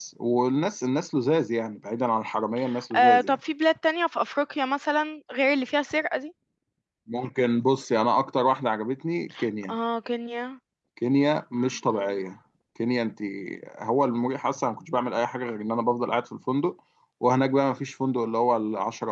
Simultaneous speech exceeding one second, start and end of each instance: none

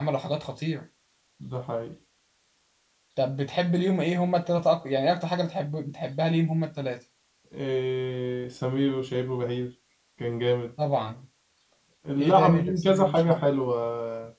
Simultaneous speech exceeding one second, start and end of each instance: 12.2-13.4

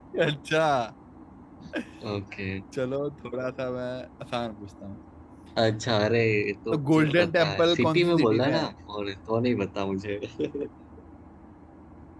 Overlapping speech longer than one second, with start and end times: 6.7-8.7

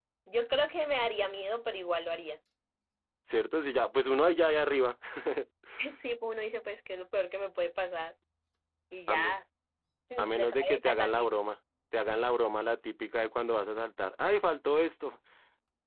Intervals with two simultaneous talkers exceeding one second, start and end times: 10.2-11.4

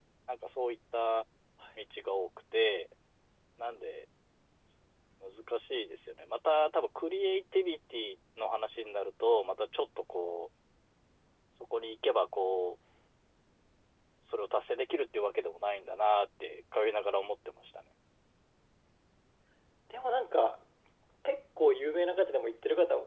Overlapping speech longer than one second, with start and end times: none

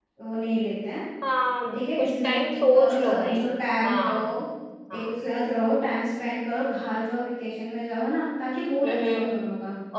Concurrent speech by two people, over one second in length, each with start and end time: 1.7-3.4

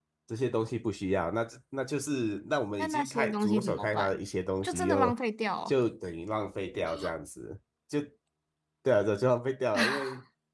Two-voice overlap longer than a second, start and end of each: 2.8-4.2

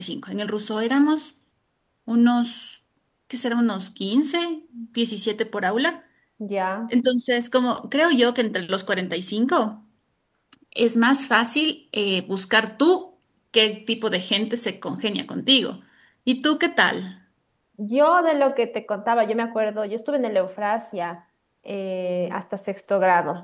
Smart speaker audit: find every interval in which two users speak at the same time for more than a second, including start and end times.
none

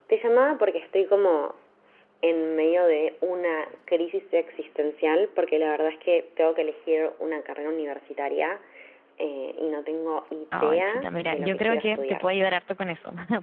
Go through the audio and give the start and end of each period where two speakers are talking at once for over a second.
10.6-12.3

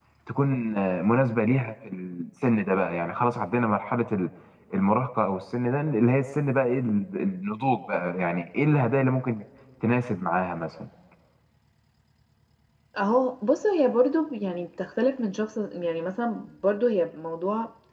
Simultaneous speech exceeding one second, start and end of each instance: none

